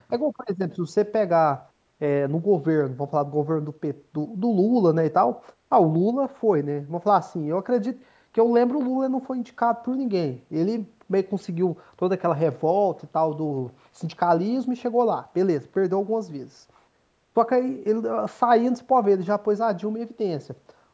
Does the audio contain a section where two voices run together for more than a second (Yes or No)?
No